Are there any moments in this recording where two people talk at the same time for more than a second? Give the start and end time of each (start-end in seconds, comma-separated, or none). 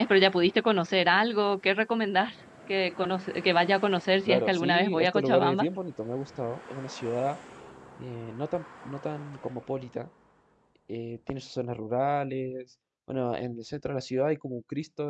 4.3-5.7